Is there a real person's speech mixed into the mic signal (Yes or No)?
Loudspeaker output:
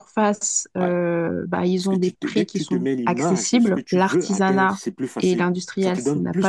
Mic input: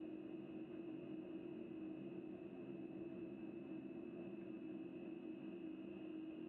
No